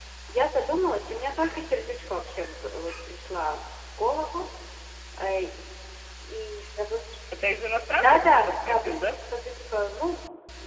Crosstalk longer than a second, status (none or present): present